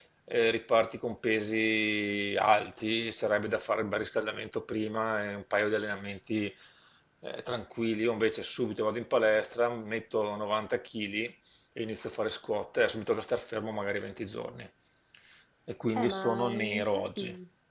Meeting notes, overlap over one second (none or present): present